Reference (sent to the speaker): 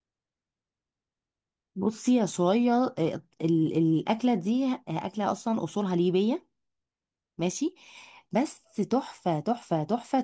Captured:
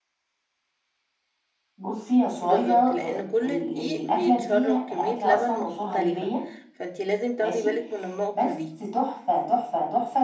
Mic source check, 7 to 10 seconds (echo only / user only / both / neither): both